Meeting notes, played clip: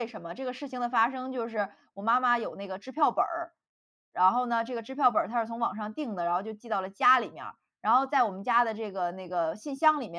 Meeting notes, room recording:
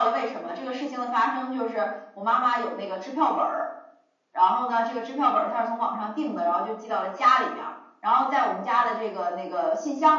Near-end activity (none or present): none